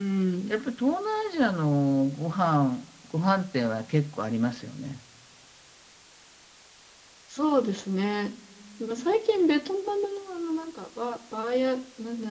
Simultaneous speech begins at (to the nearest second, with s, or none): none